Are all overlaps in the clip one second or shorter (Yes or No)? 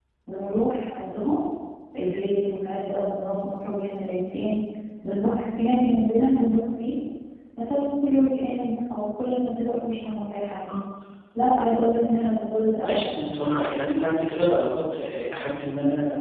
Yes